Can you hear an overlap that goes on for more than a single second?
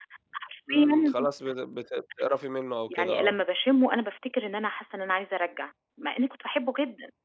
No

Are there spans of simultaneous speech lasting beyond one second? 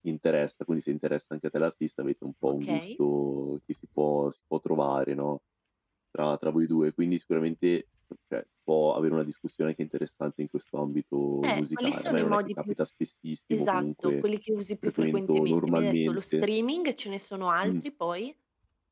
Yes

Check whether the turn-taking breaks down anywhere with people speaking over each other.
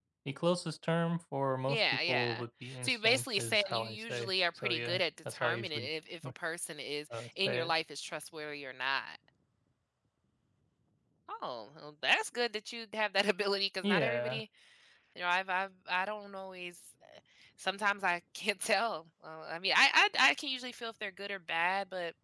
Yes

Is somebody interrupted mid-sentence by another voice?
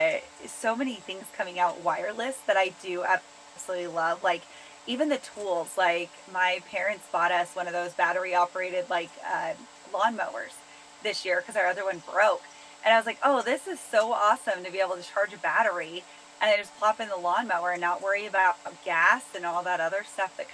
No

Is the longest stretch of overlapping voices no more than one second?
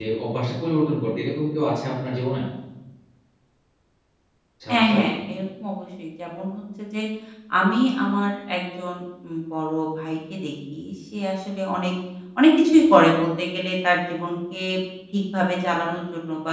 Yes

